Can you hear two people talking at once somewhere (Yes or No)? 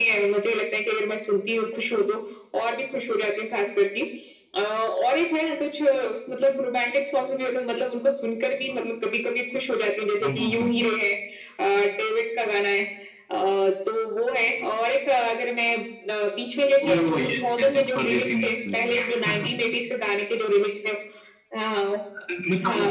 Yes